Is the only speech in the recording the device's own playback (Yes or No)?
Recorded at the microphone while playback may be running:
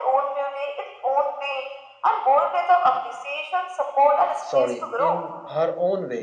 No